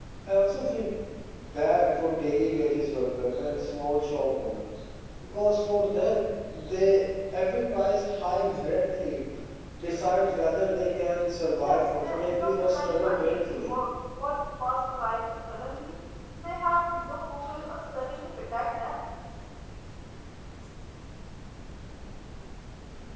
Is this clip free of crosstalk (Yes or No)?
No